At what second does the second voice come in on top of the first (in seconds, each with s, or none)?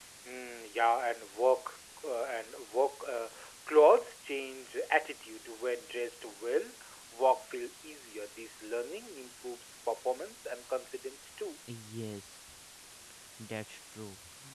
none